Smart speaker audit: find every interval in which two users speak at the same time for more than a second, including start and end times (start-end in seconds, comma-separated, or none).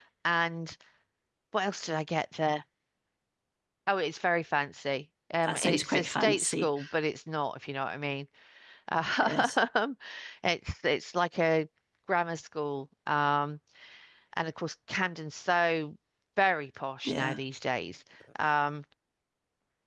5.4-6.7